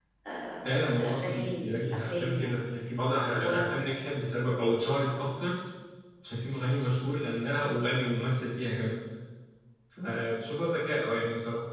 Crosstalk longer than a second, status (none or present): present